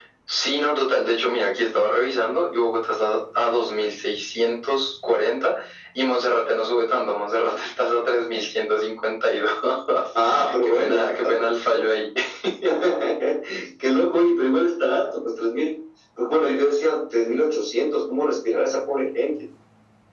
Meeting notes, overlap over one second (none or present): present